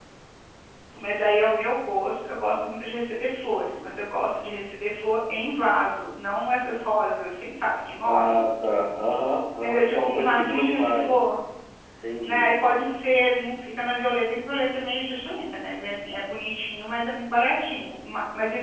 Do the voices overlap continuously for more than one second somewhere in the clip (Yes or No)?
Yes